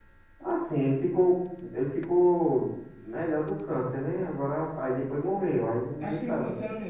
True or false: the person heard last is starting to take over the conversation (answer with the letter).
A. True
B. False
A